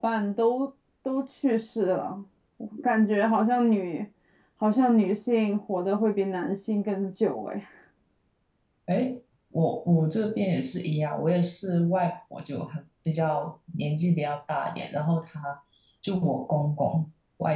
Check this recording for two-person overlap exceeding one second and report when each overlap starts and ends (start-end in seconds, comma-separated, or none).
none